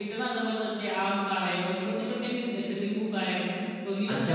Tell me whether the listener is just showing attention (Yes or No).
No